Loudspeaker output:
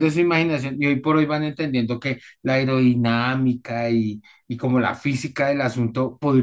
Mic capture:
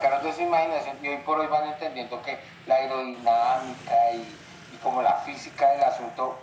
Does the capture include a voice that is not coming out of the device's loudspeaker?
No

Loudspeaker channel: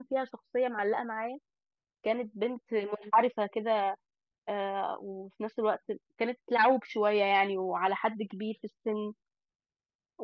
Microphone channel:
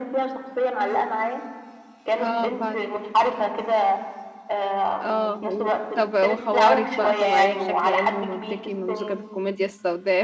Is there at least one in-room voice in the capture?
Yes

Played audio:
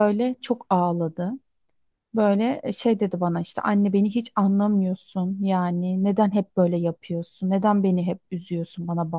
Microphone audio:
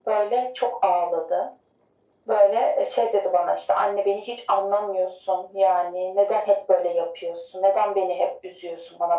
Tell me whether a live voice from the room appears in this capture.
No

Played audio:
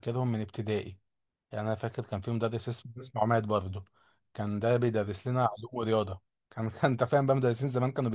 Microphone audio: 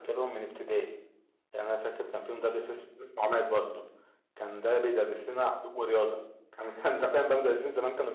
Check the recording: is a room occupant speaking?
No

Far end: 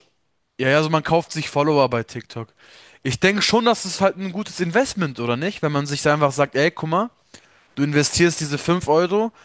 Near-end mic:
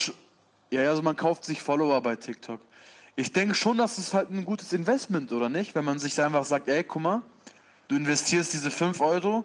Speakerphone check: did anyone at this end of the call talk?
No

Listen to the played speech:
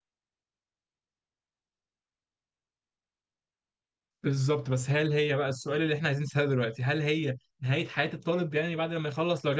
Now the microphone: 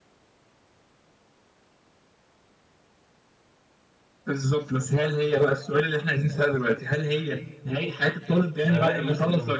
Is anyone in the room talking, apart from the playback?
Yes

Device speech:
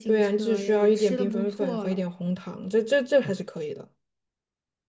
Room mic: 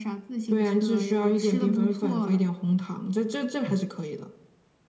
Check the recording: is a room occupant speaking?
No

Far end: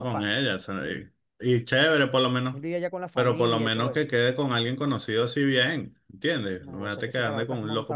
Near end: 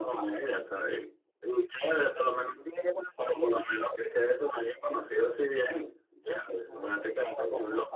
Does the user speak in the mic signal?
No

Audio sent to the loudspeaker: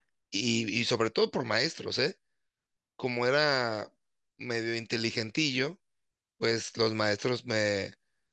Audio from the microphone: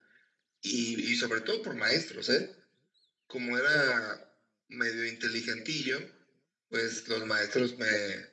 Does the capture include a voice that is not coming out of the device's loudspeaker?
No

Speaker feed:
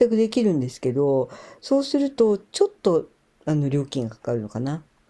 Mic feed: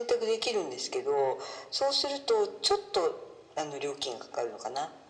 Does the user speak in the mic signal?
No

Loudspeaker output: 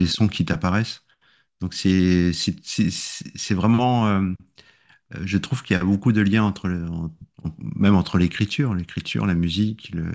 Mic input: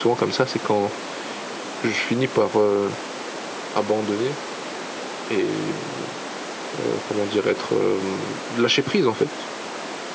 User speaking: Yes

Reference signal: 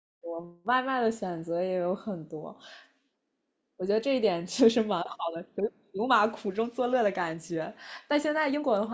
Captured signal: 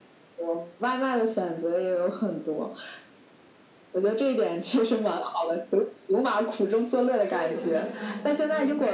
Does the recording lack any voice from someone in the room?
No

